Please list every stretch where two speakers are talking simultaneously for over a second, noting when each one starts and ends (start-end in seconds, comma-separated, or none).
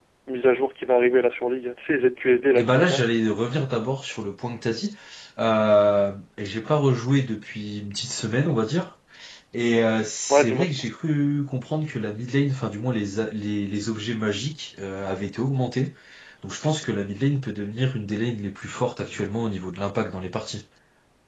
none